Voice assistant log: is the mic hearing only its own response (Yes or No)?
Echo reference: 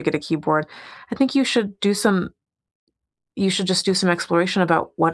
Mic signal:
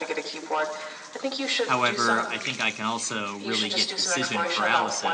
No